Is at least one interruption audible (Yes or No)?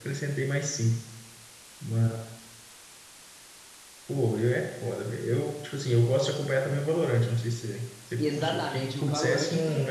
Yes